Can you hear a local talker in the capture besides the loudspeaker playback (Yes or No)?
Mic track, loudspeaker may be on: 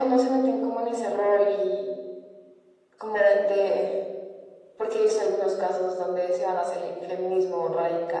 No